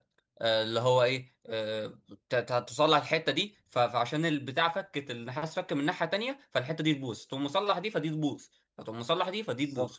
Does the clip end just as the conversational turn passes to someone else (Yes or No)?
No